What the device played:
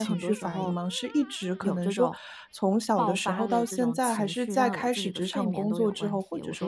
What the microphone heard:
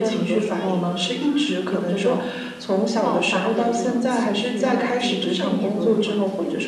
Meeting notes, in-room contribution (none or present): none